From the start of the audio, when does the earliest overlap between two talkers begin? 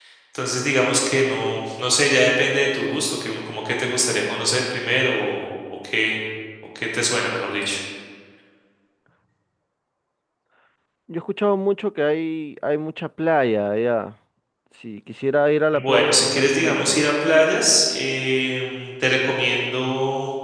16 s

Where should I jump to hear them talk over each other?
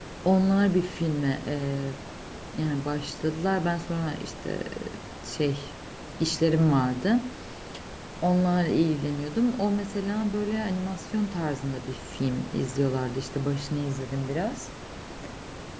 none

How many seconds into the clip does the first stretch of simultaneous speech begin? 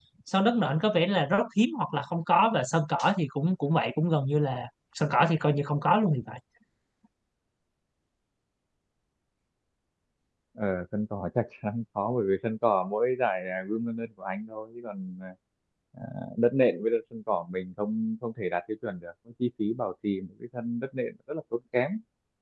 none

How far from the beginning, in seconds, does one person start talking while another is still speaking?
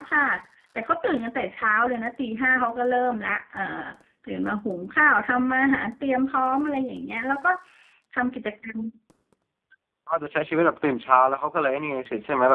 none

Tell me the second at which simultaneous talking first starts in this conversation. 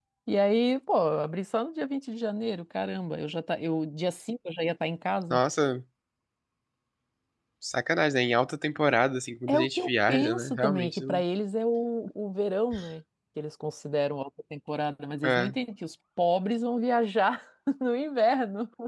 9 s

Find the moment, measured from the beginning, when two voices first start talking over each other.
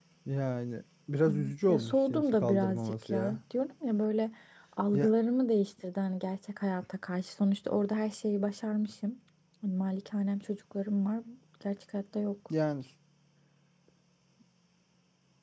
1 s

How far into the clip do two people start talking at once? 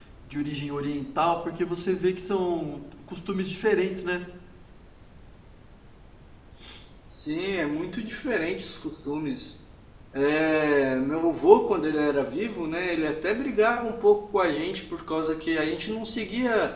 none

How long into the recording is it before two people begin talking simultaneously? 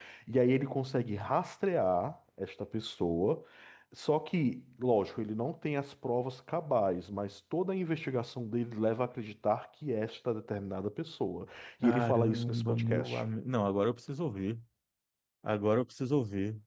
12 s

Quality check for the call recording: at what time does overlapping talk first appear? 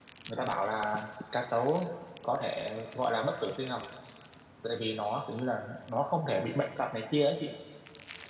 none

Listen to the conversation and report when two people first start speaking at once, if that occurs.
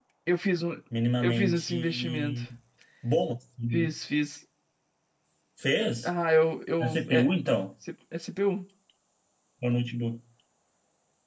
1 s

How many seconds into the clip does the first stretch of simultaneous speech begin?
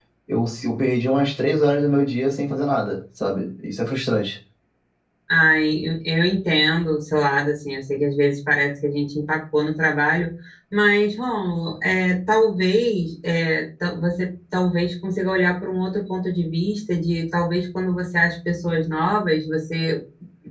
none

